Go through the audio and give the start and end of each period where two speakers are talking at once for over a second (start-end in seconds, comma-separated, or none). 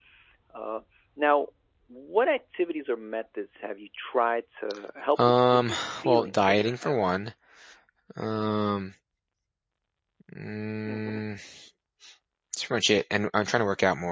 5.2-7.2